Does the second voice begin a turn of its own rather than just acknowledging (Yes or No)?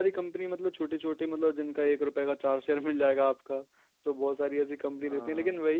No